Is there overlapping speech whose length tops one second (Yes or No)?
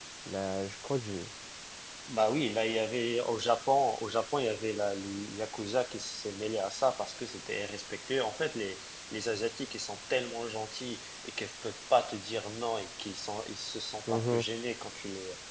No